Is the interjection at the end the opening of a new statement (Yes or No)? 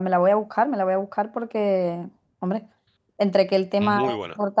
No